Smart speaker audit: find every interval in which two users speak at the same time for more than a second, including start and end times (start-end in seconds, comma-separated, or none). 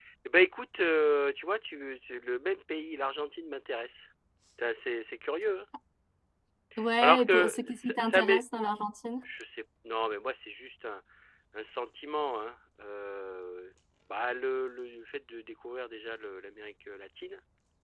7.0-8.4